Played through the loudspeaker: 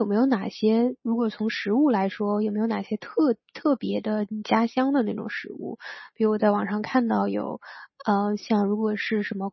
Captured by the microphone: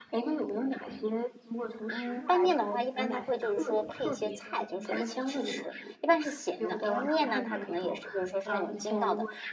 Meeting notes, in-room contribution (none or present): present